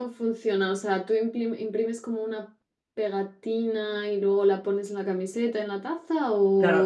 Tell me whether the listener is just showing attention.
No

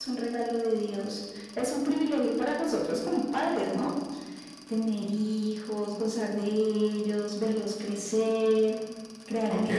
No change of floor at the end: No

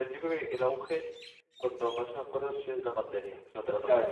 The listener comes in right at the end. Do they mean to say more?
Yes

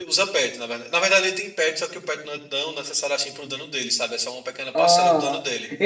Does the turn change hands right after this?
Yes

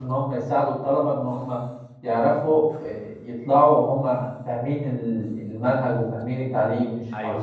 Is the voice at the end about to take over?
Yes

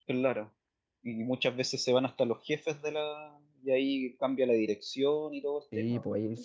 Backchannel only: No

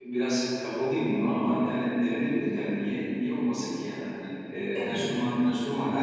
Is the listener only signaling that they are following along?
Yes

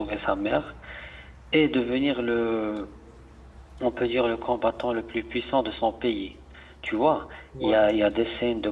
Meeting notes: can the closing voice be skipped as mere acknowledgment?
Yes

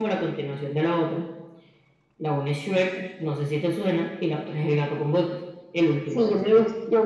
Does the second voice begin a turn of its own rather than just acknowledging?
Yes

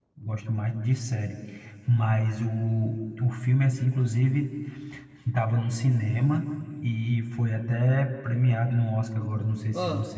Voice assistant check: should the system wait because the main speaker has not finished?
Yes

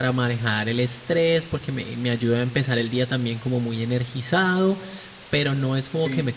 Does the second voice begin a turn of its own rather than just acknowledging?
No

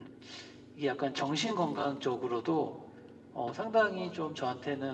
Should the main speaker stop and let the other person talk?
No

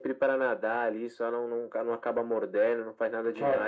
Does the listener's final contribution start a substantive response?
No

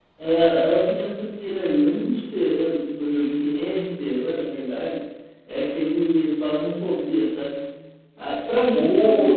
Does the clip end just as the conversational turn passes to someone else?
No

